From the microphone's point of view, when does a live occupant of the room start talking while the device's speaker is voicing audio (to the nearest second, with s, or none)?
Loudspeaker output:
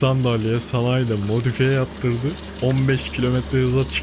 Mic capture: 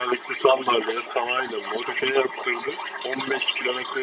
none